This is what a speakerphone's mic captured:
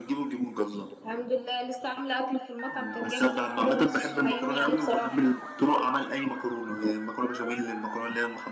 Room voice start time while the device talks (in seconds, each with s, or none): none